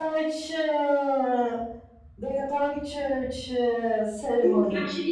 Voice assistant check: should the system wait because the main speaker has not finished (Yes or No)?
No